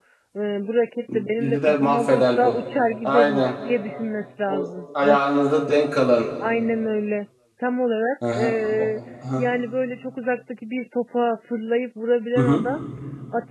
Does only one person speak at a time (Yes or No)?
No